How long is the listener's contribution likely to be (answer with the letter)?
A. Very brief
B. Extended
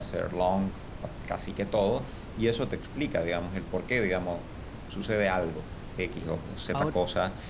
A